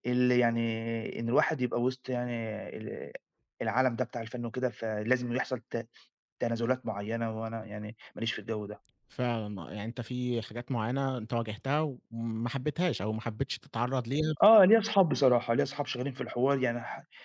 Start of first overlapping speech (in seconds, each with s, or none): none